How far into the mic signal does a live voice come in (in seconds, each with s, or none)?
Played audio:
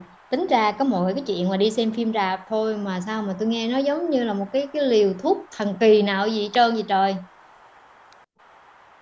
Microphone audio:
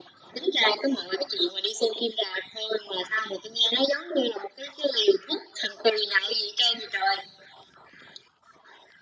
none